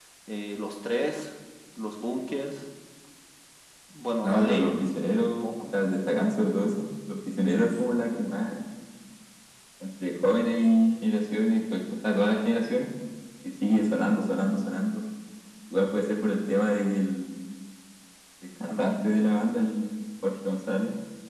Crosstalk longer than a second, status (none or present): present